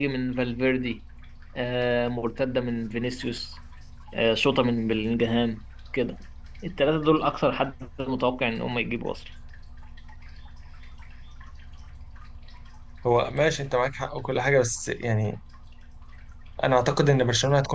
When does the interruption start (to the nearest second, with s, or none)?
none